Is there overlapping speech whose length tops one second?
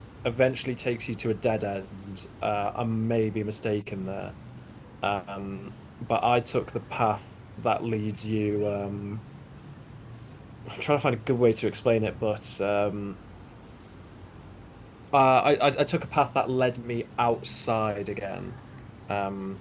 No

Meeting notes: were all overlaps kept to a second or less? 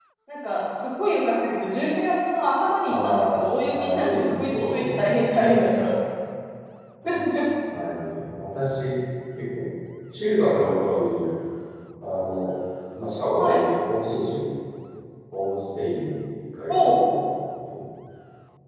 No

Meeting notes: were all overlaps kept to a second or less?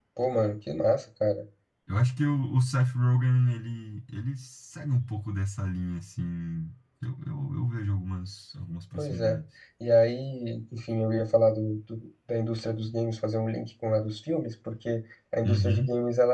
Yes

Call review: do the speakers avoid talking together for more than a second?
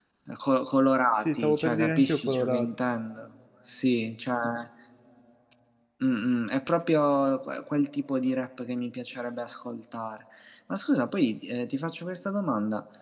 No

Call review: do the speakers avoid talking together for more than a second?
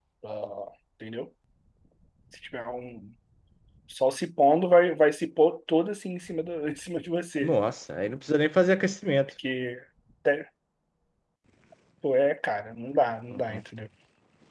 Yes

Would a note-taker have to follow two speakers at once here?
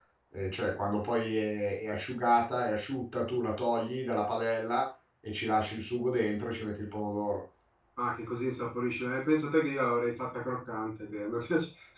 No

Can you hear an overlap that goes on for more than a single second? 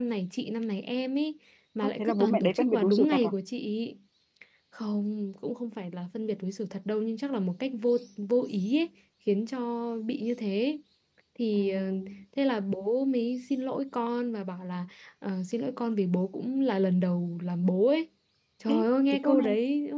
Yes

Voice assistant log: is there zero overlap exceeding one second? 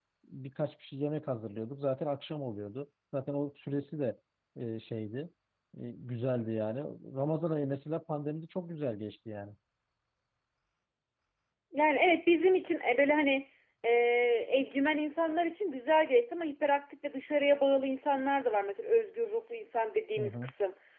Yes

